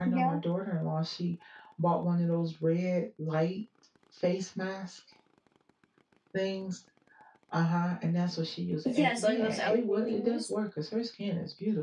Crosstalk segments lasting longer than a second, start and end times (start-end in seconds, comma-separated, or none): 8.8-10.5